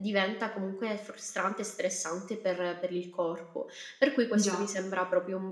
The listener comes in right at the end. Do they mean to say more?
No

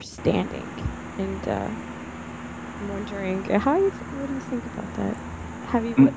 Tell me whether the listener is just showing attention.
Yes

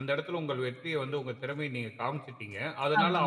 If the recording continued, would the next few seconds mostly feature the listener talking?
No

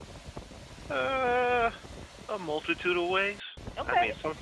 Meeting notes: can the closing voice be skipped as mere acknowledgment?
Yes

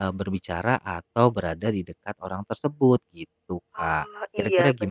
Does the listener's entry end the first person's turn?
Yes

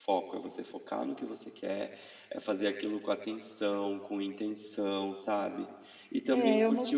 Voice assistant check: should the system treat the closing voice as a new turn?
Yes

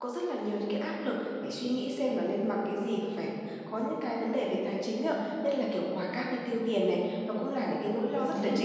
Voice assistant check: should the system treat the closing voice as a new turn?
No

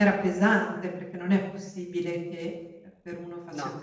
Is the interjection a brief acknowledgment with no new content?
Yes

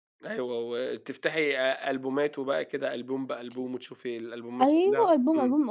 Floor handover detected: Yes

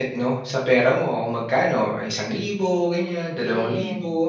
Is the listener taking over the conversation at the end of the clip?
Yes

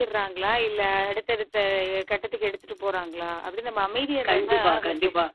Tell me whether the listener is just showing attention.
No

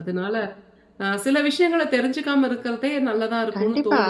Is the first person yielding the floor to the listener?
Yes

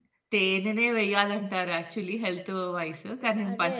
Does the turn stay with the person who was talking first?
Yes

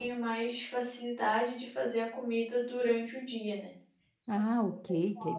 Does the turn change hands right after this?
Yes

